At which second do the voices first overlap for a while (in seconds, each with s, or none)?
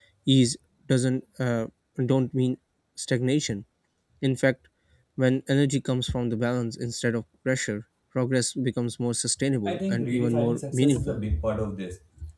9.7 s